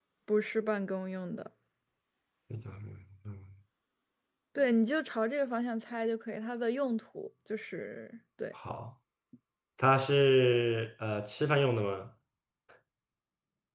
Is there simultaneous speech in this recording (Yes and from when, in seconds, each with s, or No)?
No